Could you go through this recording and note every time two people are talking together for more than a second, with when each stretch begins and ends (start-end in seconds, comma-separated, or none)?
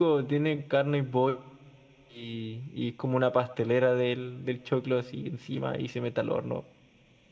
none